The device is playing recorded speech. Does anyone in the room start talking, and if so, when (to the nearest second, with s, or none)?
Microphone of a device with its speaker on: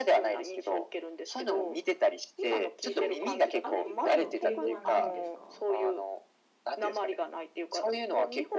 2 s